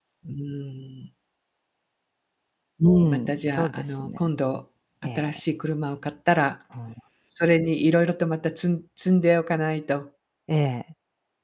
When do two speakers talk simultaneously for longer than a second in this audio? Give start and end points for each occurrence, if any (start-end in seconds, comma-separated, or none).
3.1-4.3